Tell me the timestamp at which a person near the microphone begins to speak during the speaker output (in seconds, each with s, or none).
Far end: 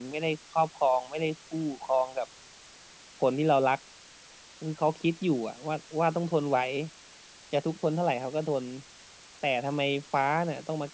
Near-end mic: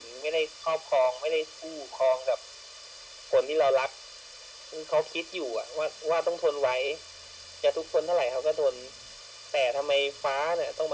none